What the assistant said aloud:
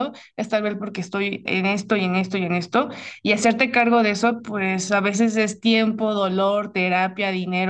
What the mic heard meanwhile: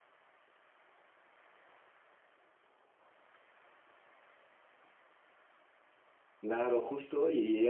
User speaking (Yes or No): Yes